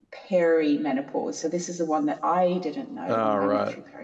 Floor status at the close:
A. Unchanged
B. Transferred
A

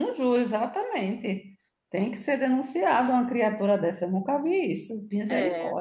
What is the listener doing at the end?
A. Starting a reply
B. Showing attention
A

